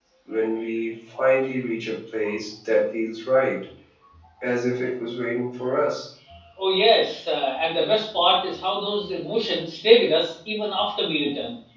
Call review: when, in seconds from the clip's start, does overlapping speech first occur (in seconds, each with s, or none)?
none